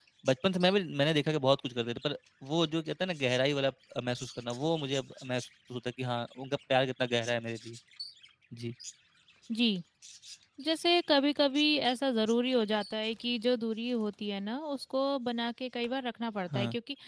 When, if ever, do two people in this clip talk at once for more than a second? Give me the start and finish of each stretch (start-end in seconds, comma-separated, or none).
none